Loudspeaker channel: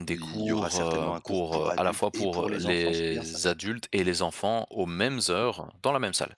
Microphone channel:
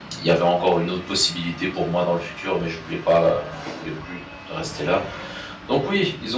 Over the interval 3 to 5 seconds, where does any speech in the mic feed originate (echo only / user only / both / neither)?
user only